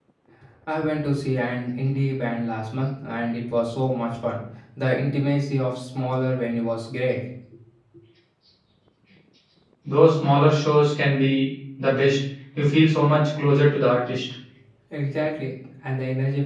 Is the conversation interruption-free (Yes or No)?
Yes